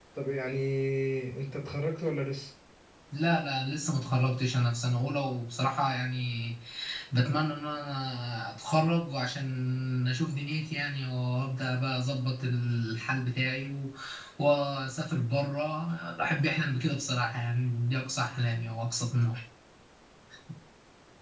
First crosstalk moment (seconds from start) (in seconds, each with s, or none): none